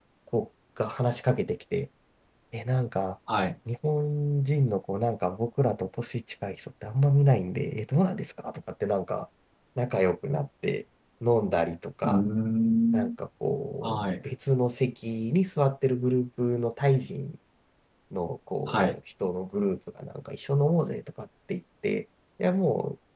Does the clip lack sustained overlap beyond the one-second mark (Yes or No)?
Yes